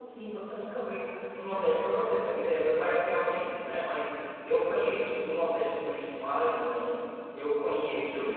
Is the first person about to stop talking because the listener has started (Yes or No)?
No